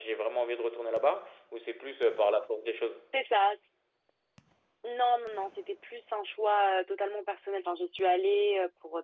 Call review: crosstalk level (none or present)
none